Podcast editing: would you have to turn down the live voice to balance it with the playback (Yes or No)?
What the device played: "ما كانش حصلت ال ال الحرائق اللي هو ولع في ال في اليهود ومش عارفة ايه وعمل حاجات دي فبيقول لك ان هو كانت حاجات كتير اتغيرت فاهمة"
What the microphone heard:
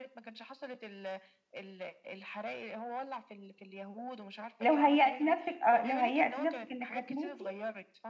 Yes